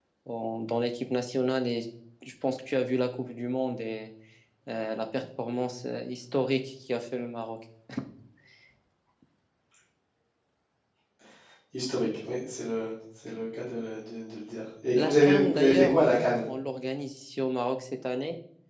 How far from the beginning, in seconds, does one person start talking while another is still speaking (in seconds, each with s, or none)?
14.9 s